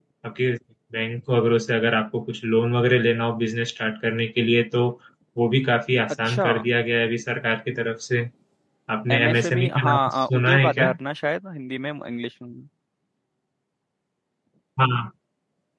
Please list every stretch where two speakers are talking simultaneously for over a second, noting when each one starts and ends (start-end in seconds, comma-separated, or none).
9.1-10.9